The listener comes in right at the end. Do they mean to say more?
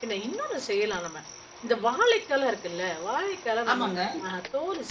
No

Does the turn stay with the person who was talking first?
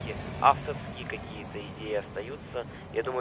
Yes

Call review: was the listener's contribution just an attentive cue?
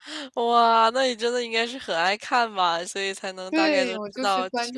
No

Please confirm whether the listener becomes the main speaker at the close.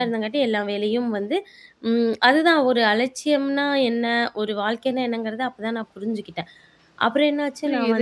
Yes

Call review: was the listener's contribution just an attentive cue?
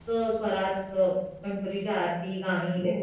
No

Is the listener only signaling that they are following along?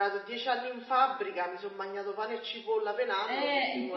No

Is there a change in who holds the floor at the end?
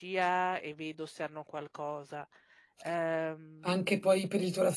Yes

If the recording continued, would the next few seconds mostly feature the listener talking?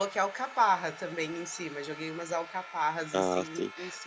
Yes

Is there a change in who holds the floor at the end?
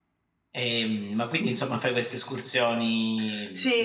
Yes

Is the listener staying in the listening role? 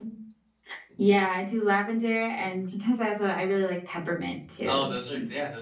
No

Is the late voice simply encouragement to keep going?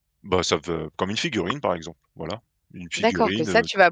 No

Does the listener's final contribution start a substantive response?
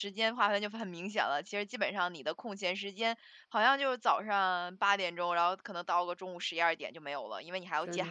No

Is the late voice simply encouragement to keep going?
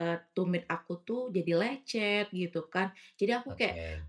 Yes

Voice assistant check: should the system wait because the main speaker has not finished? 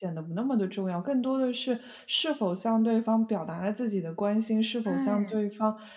Yes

